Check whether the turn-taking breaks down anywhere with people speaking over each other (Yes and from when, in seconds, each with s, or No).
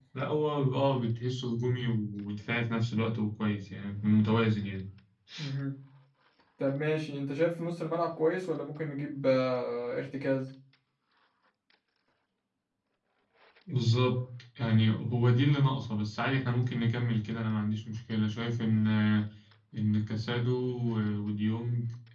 No